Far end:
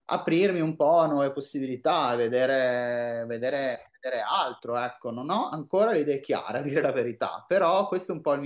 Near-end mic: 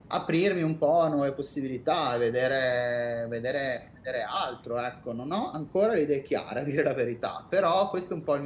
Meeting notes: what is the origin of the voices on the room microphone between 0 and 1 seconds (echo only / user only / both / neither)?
echo only